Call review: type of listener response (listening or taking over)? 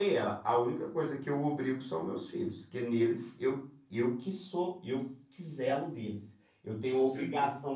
listening